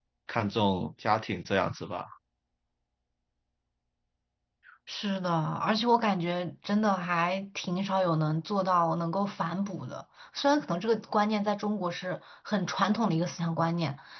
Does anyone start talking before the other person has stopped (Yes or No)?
No